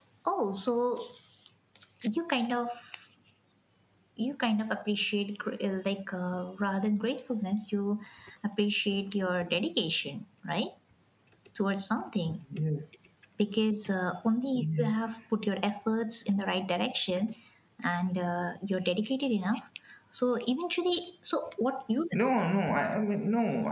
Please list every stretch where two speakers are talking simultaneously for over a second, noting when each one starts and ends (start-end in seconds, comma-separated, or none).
none